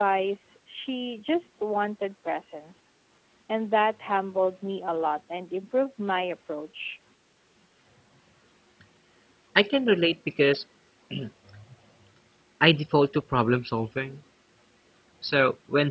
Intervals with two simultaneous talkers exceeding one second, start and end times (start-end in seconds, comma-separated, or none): none